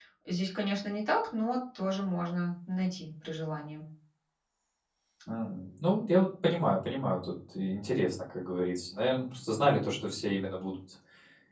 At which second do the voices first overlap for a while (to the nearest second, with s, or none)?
none